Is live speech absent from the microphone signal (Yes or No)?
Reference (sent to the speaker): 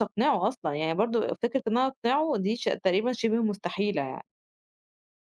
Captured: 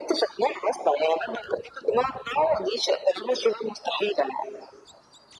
Yes